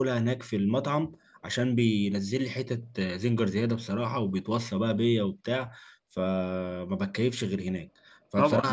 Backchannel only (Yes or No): No